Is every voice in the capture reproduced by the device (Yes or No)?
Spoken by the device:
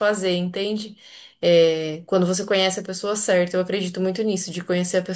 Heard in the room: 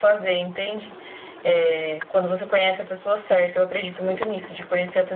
Yes